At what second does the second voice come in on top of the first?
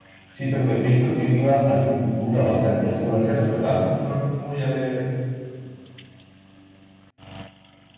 2.3 s

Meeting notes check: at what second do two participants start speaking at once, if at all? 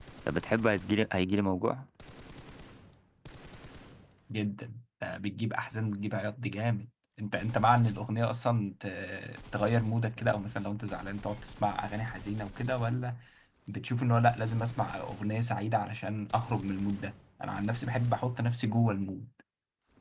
none

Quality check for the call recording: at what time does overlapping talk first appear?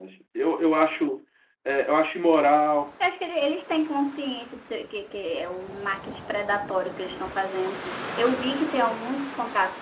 none

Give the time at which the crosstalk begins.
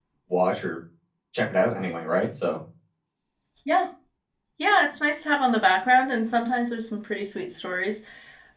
none

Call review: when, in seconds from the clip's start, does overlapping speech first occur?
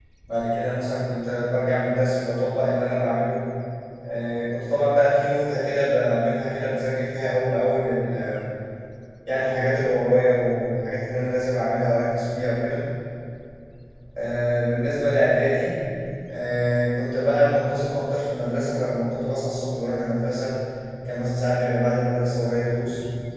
none

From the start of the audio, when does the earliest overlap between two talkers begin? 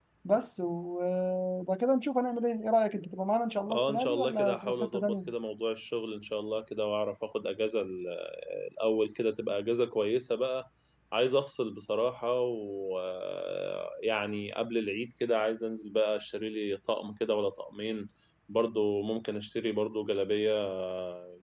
3.7 s

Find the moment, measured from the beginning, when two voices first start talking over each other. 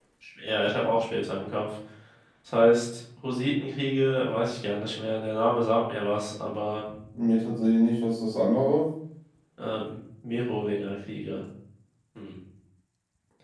none

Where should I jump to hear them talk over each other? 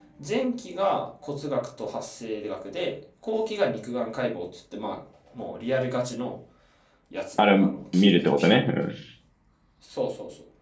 7.4 s

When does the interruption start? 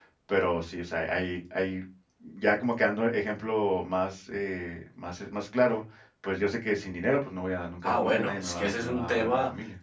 7.8 s

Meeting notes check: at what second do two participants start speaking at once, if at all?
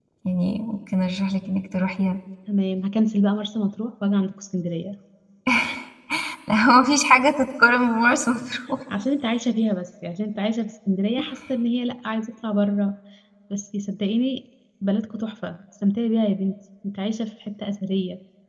none

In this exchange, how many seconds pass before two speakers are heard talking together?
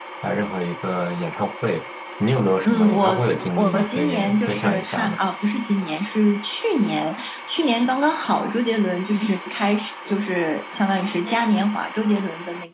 2.6 s

